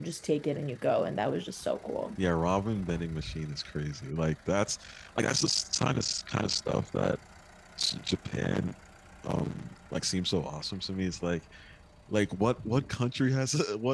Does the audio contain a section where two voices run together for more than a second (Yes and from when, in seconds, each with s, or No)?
No